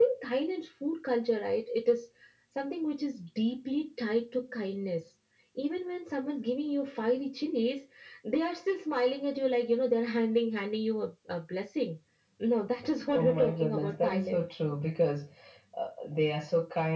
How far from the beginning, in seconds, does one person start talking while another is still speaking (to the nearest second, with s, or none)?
13 s